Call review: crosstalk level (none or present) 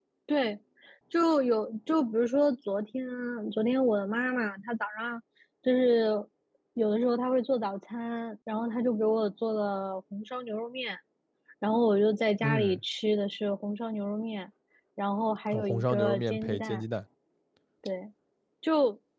present